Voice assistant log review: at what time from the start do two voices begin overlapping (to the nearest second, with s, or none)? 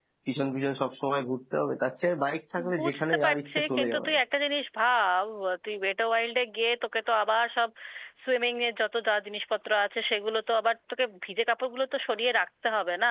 3 s